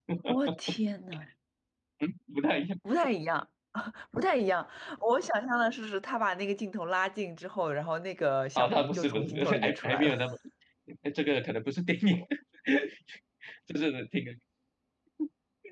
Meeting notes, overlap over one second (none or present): present